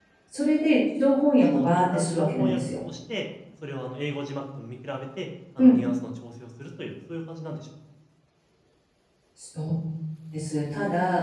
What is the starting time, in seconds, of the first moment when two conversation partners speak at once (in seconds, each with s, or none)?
1.4 s